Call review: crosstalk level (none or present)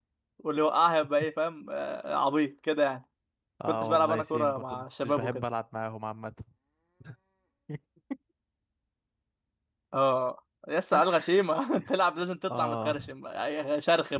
present